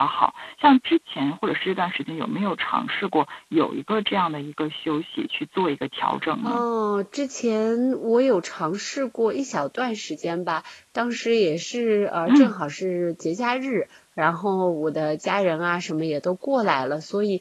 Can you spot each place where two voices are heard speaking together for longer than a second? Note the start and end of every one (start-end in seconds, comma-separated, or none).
none